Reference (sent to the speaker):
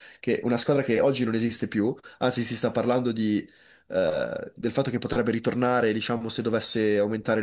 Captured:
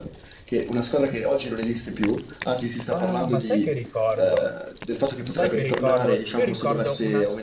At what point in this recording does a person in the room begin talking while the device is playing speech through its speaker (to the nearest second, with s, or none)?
3 s